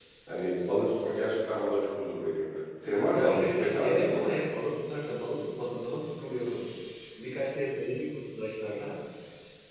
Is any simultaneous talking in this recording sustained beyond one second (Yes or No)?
Yes